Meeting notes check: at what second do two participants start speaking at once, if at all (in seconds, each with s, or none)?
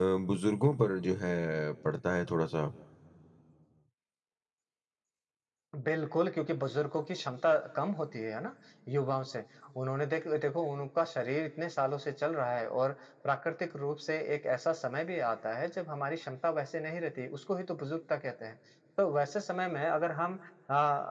none